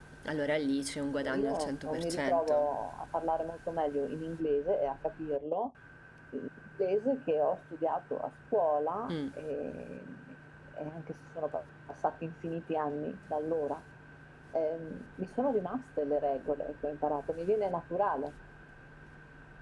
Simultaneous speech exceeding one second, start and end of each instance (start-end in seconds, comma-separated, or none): 1.3-2.7